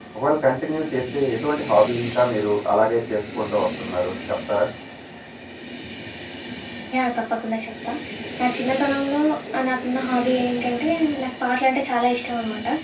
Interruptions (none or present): none